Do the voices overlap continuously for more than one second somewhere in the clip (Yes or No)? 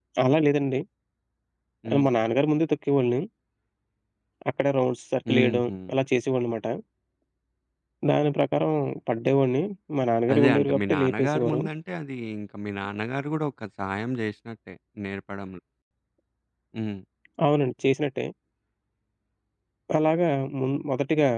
Yes